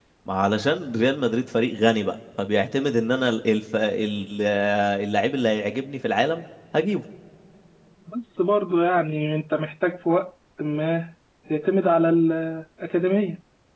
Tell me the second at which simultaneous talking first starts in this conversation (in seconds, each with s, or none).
none